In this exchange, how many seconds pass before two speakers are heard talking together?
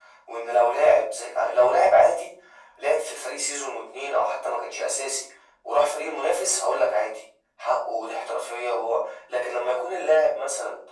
none

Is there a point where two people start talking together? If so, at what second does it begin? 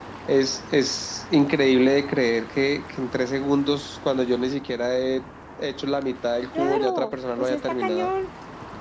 7 s

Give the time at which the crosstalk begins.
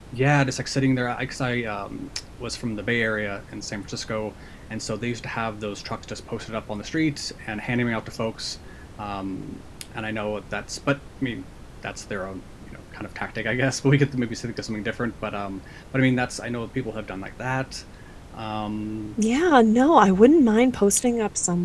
none

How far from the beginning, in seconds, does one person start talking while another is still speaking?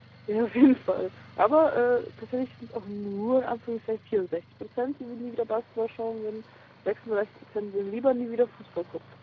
none

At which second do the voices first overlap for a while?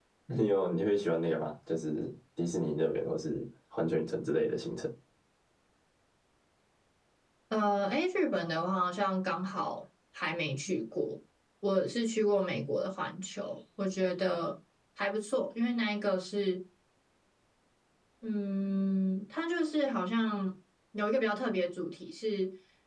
none

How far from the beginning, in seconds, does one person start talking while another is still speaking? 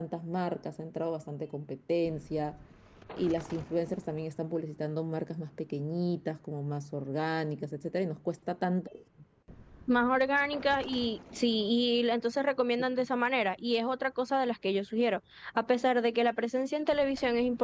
none

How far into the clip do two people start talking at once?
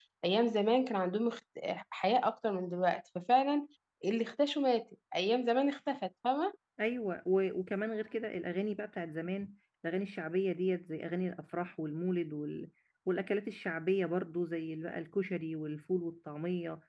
none

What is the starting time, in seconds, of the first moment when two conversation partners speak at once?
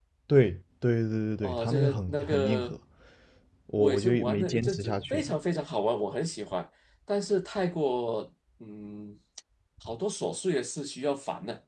1 s

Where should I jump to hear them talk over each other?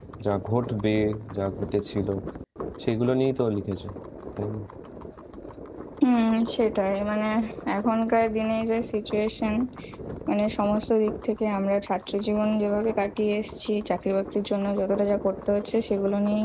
none

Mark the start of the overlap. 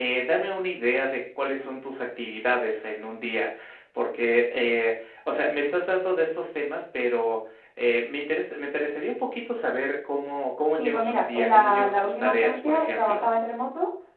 11 s

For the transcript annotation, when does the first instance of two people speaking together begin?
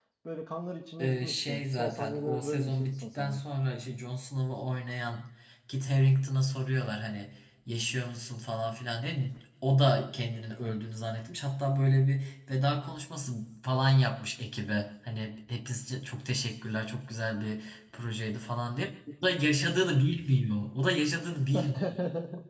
1 s

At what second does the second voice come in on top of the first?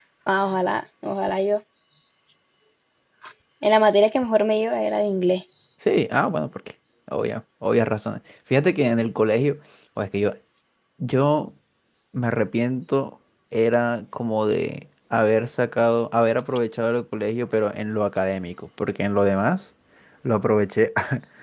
none

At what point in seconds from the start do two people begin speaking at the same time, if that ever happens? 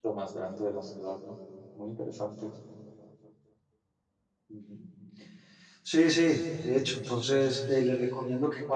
none

